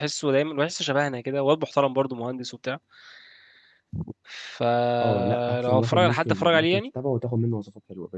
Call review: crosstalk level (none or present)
present